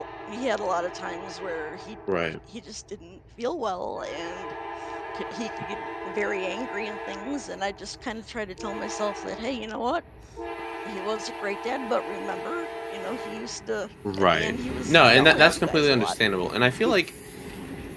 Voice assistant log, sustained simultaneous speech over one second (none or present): present